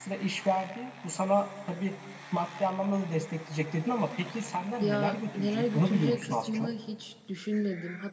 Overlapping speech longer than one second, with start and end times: 4.8-6.7

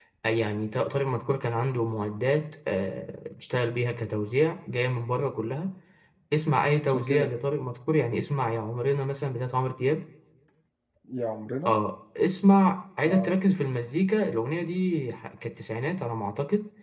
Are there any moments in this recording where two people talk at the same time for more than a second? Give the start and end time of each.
none

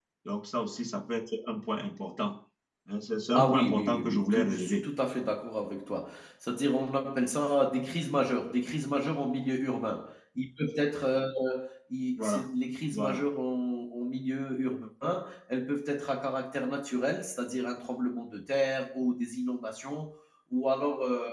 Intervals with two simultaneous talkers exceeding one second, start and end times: 3.3-4.8

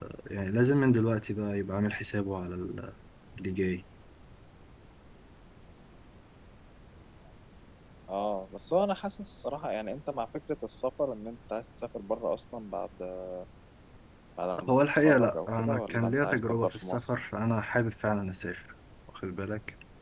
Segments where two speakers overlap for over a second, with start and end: 14.7-17.1

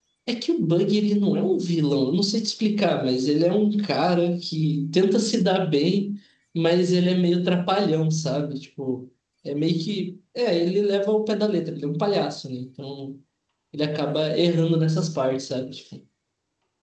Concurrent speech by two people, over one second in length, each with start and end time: none

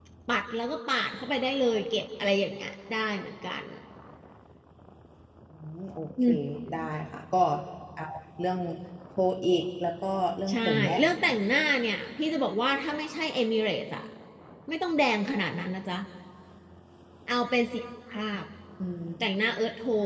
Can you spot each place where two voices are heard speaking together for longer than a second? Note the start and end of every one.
none

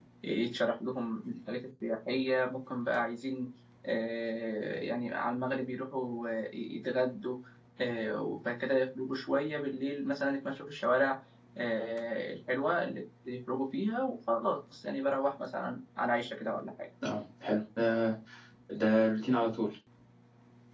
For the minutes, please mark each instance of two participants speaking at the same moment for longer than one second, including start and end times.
none

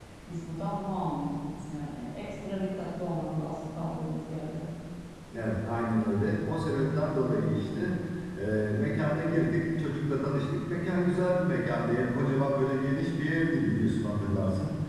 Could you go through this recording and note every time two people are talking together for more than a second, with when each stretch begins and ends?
none

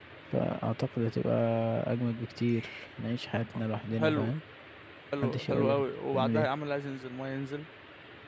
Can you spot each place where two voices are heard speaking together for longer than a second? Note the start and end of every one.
5.2-6.5

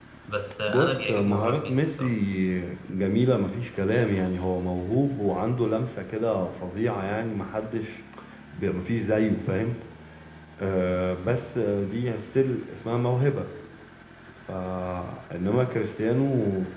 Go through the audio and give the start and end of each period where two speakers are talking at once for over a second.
0.7-2.0

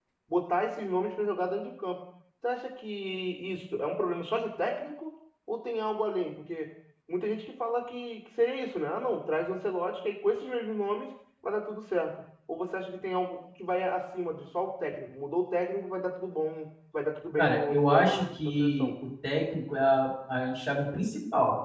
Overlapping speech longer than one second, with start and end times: 17.4-18.9

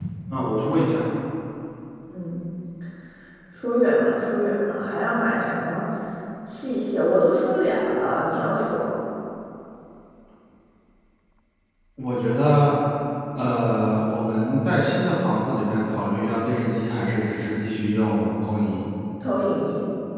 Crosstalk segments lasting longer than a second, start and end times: none

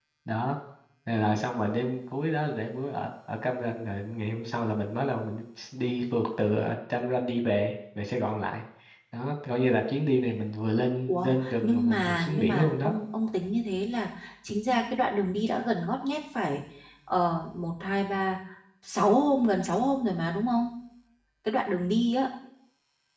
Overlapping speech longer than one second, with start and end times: 11.1-12.9

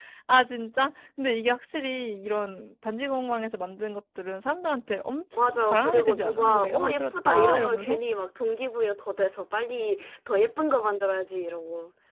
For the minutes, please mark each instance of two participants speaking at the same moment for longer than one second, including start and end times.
5.5-8.0

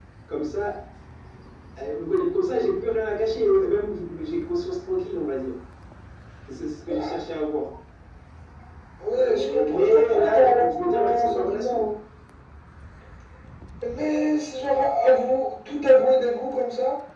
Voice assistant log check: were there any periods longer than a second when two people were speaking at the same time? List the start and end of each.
9.2-11.8

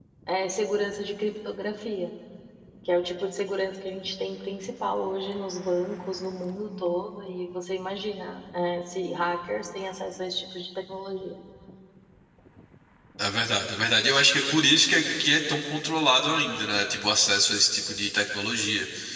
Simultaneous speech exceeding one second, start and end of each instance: none

